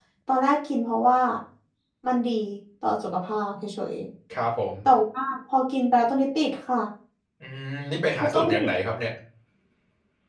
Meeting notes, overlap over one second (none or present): none